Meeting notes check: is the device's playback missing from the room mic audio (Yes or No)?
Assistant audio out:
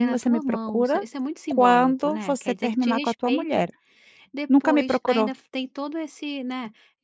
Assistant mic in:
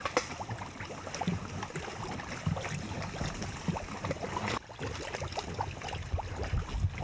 Yes